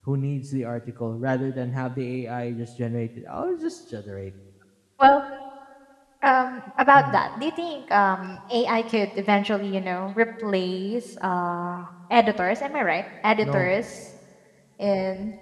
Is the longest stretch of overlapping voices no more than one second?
Yes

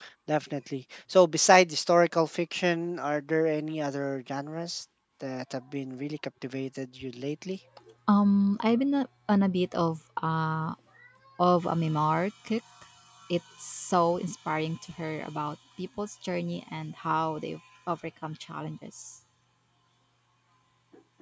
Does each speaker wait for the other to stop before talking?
Yes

